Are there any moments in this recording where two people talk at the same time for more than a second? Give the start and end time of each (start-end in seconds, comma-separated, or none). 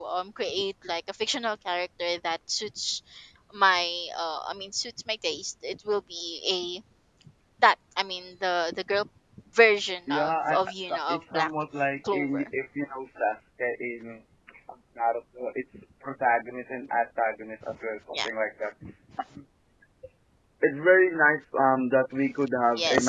10.1-11.5